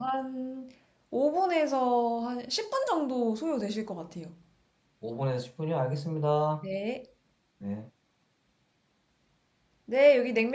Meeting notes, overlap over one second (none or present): none